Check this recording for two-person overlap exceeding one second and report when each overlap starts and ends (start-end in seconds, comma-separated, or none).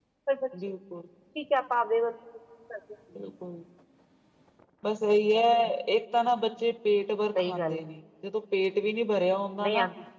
none